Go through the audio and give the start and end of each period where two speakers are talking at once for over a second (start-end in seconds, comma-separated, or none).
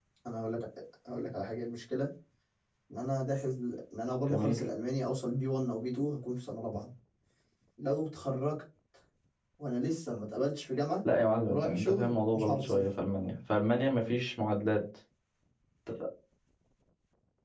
11.5-12.8